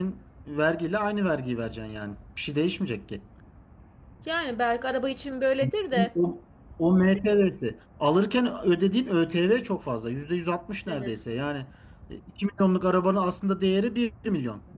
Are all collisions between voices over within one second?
Yes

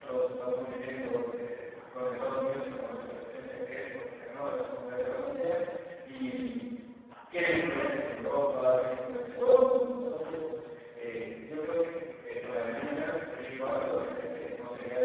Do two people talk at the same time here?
No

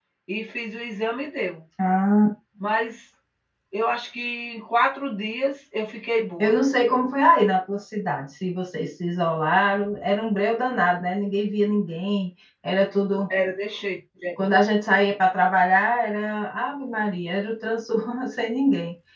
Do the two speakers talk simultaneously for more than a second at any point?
No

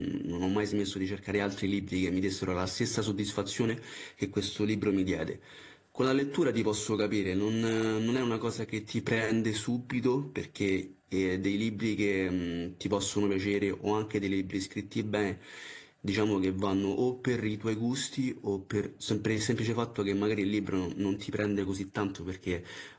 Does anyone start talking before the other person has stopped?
No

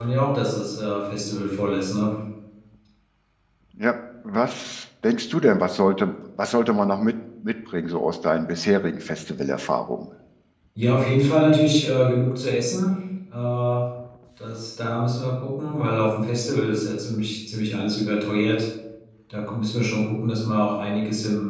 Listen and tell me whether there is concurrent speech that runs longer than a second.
No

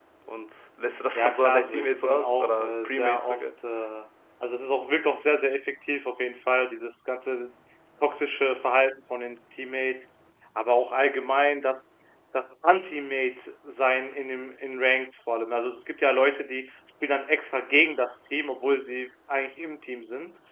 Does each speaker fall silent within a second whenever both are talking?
No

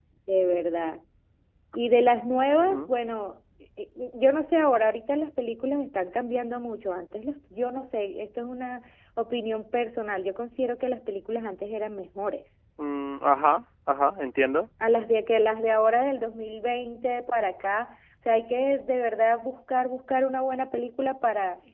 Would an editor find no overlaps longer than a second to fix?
Yes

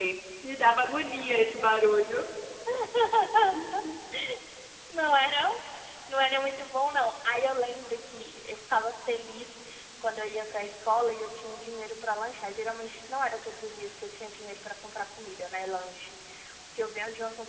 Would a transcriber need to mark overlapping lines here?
No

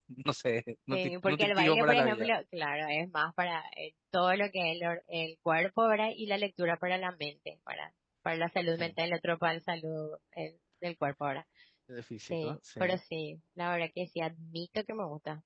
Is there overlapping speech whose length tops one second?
Yes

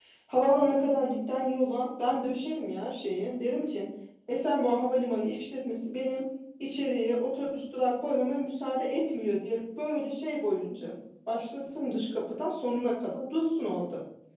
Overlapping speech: No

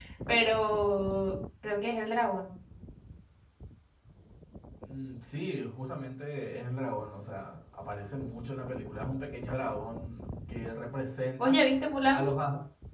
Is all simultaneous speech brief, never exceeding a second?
Yes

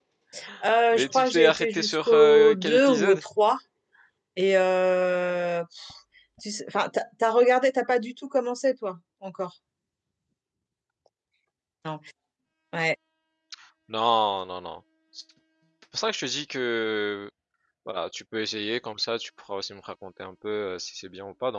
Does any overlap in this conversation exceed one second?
Yes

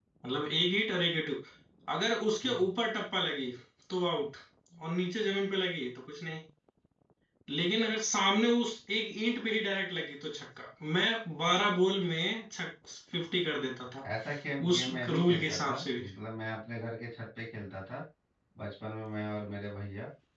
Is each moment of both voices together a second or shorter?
No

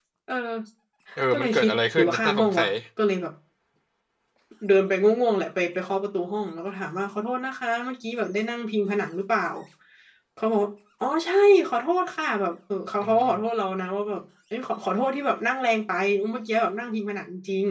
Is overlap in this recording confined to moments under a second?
No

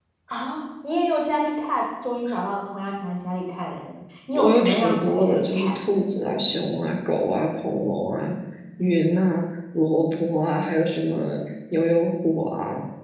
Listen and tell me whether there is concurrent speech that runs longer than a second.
Yes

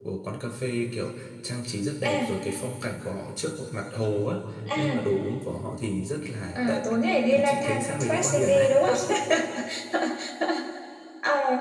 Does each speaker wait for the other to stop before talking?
No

